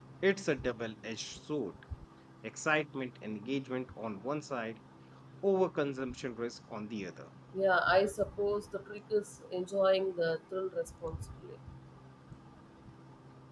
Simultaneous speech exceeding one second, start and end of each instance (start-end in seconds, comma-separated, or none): none